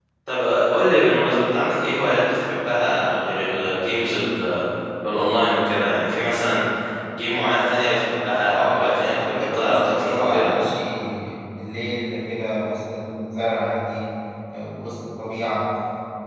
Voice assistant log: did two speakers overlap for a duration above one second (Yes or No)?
Yes